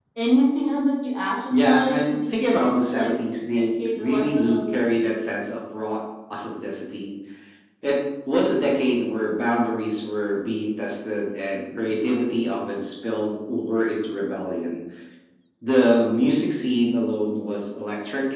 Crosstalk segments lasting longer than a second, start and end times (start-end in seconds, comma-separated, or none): 1.5-4.8